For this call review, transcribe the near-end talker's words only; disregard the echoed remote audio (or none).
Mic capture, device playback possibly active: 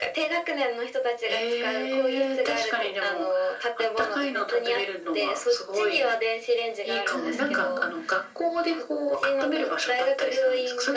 はい。